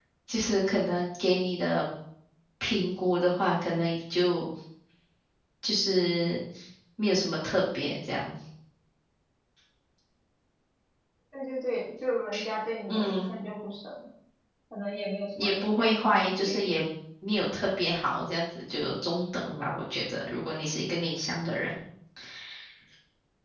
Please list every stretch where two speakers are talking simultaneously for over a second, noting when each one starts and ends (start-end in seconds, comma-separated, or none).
15.4-16.7